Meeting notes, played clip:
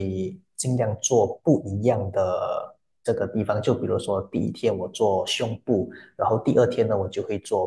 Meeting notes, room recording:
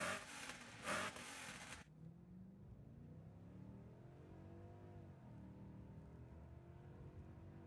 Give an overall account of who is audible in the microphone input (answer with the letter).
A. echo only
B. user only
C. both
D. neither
D